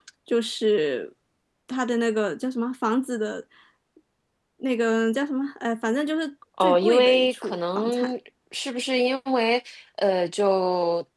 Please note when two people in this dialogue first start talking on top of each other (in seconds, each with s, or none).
6.6 s